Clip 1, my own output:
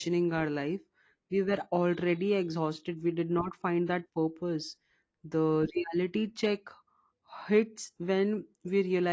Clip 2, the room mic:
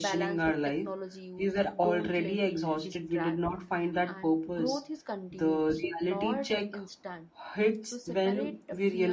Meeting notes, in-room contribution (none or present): present